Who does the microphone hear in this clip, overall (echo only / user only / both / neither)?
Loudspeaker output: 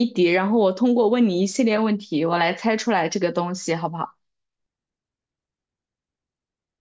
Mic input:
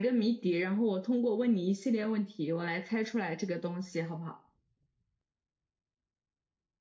echo only